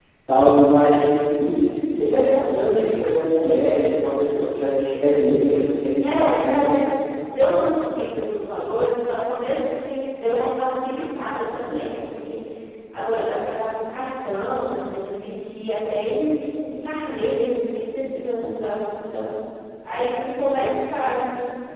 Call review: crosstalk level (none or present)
present